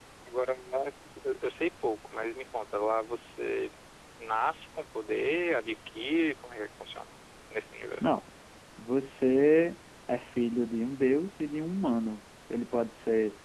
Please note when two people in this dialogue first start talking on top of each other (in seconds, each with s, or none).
none